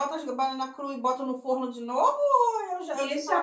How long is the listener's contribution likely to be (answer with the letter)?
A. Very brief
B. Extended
B